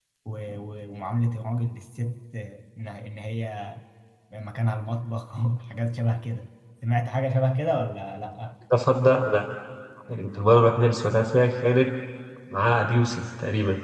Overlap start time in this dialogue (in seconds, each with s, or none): none